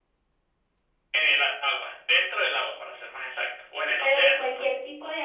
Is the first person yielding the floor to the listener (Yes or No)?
Yes